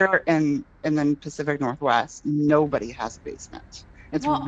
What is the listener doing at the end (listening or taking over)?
listening